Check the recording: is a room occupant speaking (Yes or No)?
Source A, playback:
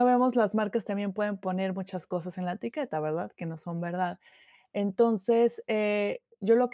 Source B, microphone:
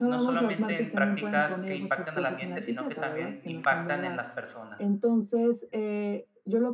Yes